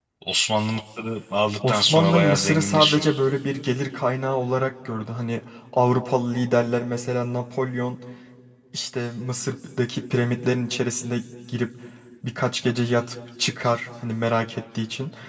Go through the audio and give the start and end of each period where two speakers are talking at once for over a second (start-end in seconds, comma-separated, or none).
1.7-3.1